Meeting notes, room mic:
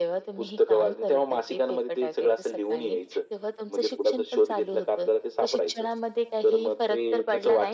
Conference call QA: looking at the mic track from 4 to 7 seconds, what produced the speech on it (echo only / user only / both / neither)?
echo only